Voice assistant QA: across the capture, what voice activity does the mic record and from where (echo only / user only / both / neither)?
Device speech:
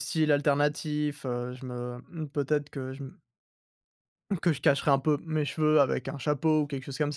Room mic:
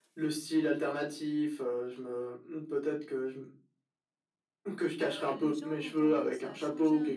both